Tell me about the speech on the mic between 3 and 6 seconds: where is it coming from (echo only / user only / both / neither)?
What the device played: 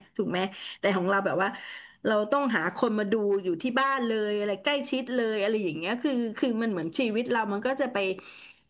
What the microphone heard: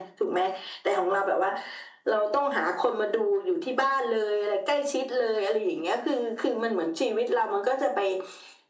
echo only